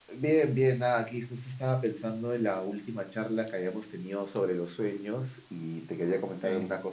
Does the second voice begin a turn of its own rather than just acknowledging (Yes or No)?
No